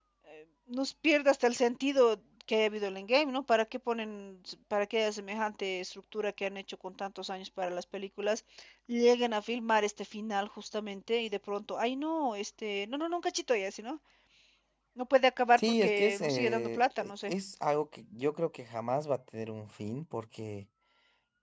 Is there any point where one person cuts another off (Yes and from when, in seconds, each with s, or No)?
Yes, from 15.6 s